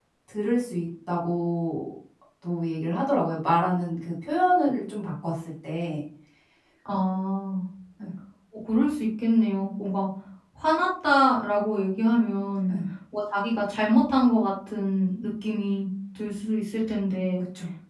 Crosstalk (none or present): none